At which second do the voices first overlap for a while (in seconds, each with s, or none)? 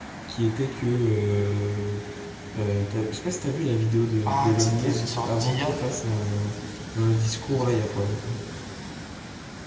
4.2 s